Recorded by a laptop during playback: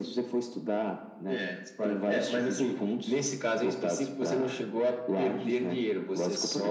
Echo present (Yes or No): Yes